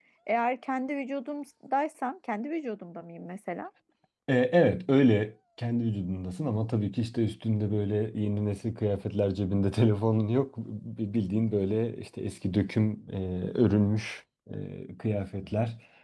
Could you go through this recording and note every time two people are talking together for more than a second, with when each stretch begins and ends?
none

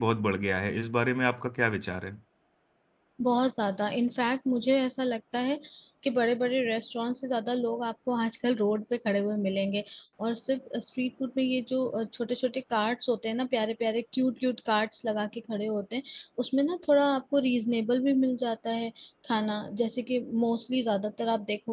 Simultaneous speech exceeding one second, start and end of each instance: none

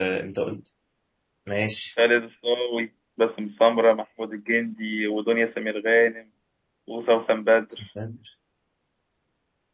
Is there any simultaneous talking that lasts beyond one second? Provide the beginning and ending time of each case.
none

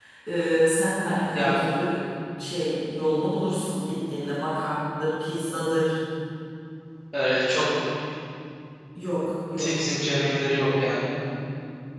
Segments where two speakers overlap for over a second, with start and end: none

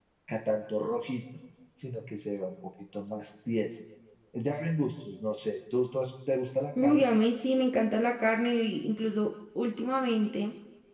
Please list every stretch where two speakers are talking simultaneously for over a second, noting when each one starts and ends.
none

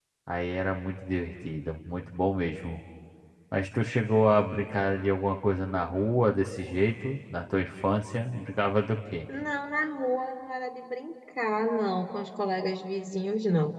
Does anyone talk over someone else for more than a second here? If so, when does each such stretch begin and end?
none

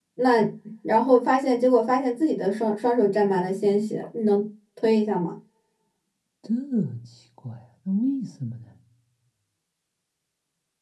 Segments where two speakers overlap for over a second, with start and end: none

